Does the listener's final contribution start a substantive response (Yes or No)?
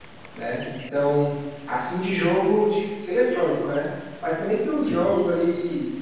No